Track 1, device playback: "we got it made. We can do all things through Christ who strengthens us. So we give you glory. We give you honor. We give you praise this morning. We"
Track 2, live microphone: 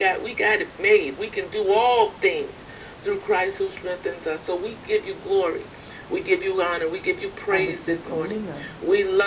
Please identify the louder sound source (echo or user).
echo